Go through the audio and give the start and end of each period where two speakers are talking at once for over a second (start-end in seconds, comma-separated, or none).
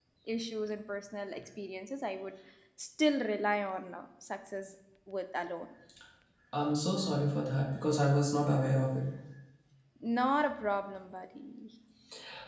none